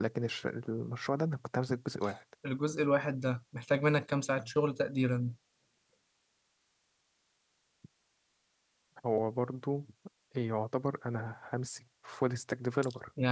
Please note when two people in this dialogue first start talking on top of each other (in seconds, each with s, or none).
none